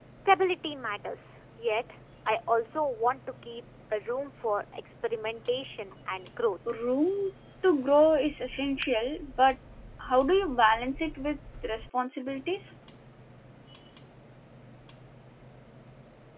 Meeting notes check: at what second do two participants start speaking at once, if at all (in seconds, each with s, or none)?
none